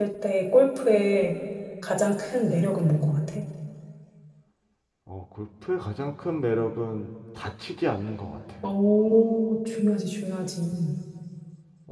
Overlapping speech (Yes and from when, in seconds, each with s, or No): No